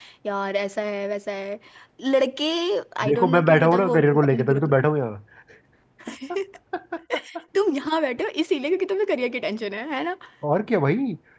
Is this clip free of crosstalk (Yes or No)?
No